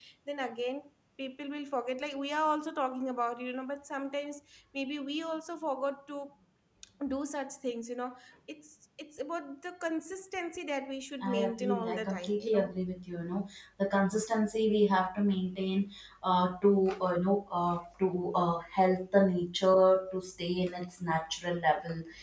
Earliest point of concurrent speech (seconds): 11 s

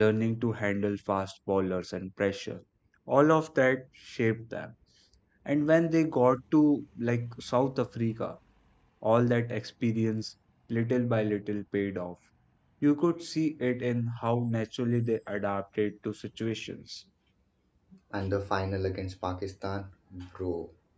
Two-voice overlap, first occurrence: none

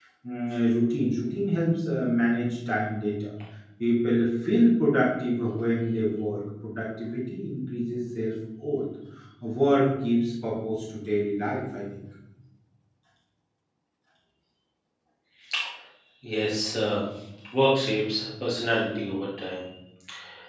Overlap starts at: none

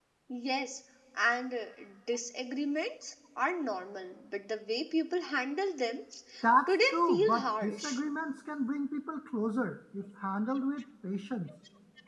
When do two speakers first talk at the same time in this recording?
7 s

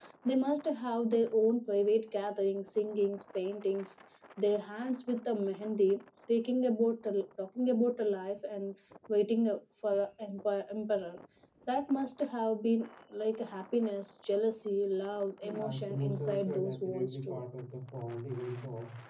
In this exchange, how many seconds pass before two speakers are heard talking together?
15 s

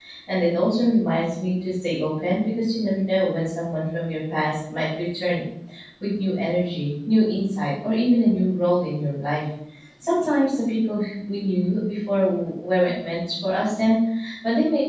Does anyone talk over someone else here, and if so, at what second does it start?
none

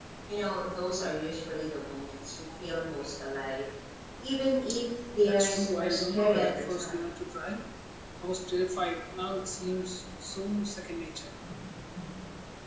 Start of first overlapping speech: 5 s

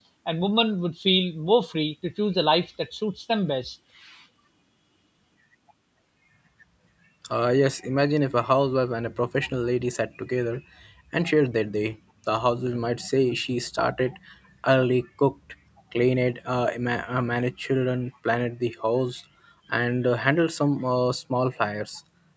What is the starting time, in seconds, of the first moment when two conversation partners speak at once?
none

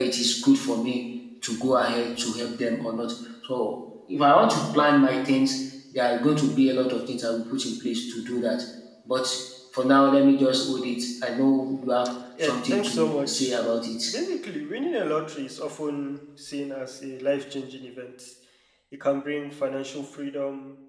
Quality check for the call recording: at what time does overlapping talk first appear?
12 s

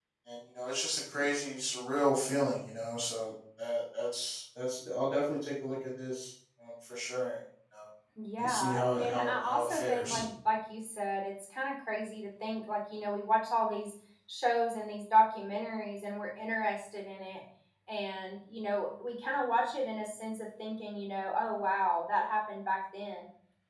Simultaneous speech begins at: 8 s

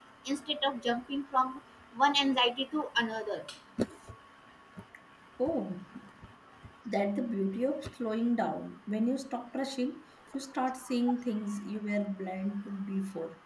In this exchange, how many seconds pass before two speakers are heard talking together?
none

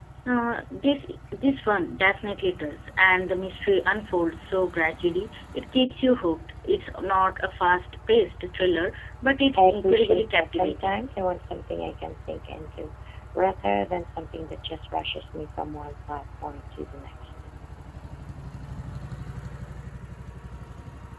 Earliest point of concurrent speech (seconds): 10 s

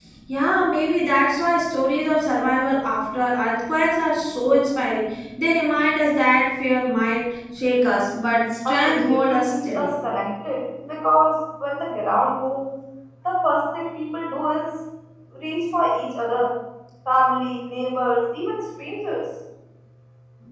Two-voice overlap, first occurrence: 9 s

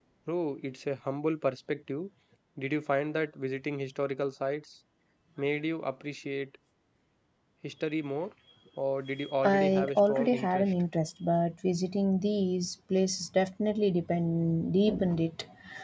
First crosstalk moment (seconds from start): 9 s

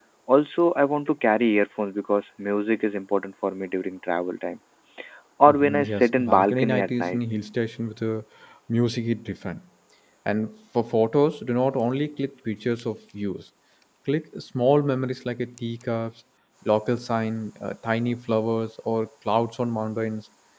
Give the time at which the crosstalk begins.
5 s

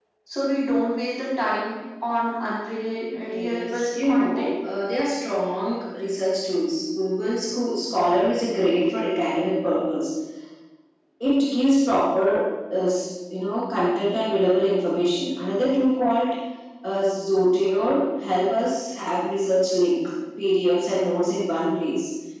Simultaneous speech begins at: 3 s

